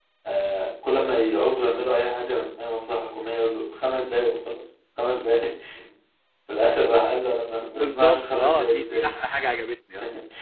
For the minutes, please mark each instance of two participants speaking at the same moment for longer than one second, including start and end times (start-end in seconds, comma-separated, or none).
7.8-9.2